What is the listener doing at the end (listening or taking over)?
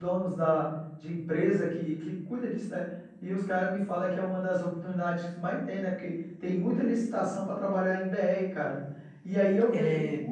listening